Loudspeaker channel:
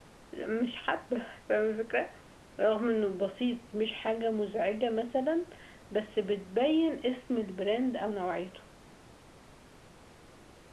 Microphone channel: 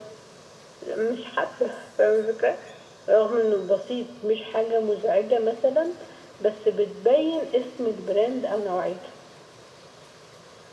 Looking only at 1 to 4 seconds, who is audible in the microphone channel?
echo only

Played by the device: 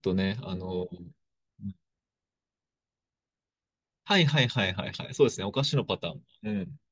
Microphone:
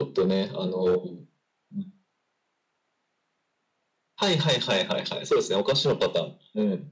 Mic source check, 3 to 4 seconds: neither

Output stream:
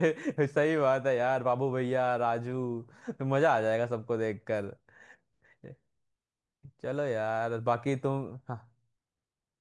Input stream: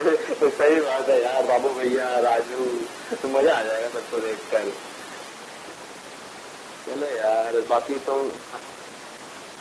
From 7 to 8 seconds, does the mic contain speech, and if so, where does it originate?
echo only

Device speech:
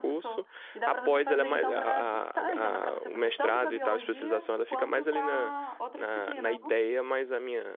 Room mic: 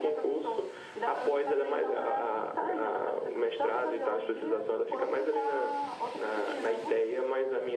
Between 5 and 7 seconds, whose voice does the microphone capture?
echo only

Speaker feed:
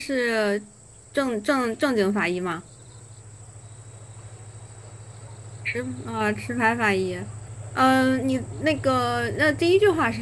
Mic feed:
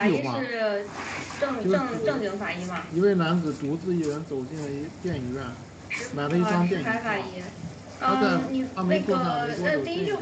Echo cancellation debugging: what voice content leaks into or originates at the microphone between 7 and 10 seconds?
both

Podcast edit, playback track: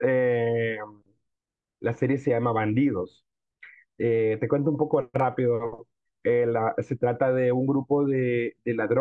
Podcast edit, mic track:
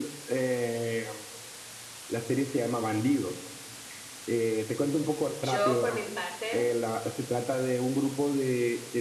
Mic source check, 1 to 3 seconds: echo only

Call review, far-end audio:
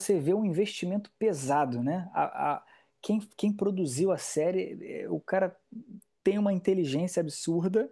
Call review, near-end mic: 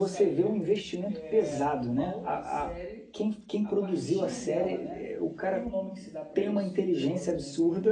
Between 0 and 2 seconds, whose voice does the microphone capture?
both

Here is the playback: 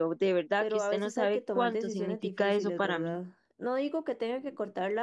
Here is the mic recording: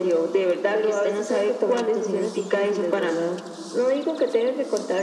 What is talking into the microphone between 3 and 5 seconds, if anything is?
echo only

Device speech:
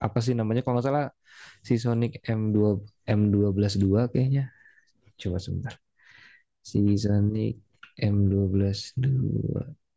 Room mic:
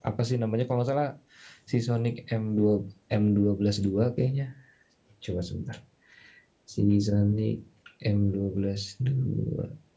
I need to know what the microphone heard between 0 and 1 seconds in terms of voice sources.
echo only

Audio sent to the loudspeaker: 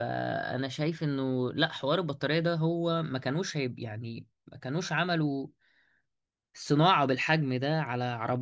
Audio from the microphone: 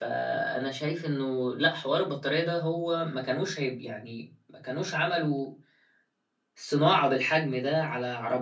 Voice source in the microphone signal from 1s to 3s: echo only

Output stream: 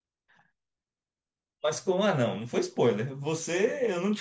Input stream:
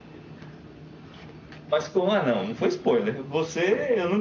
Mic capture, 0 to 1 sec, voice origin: neither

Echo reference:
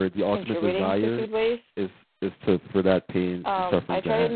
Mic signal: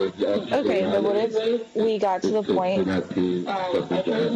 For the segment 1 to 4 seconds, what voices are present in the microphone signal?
both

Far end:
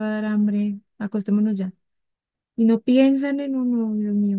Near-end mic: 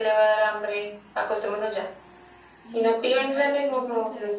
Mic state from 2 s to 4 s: both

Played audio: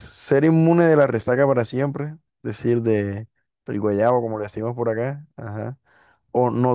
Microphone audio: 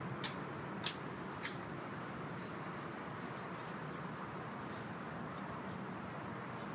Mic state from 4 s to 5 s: neither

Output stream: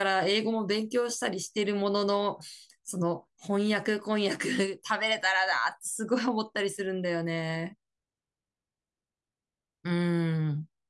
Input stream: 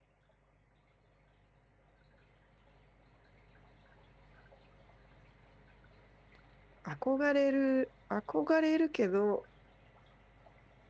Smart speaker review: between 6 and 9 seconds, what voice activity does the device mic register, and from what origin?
user only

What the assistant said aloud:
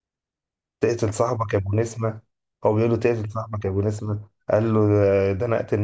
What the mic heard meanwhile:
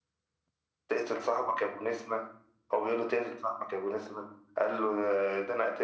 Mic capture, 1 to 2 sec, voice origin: echo only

